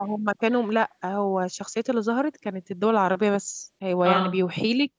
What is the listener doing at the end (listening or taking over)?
listening